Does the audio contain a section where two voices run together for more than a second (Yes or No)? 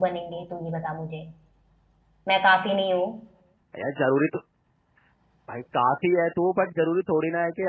No